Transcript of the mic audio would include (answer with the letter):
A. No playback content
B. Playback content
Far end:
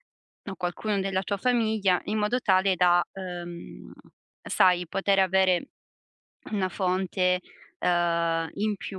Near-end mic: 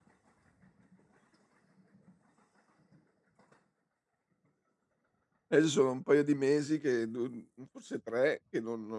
A